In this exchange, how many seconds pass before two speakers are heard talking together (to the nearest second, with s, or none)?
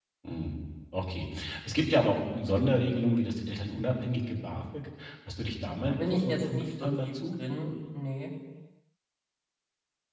6 s